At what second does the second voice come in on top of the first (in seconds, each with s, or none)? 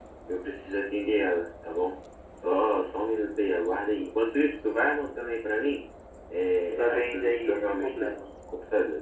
6.8 s